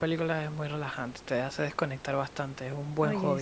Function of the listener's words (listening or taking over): taking over